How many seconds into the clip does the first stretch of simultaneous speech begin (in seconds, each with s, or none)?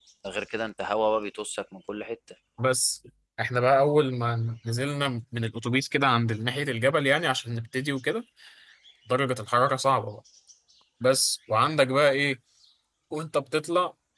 none